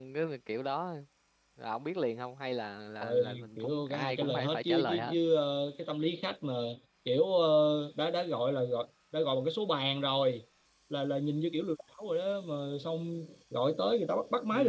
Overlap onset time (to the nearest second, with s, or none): 3 s